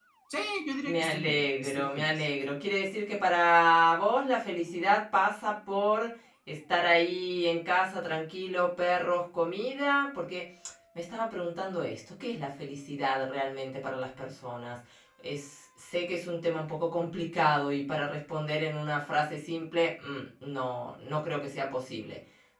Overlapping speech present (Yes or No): Yes